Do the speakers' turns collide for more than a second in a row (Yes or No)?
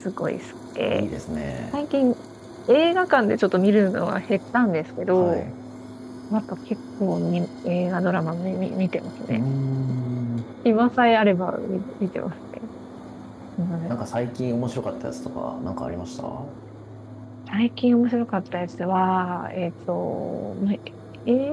No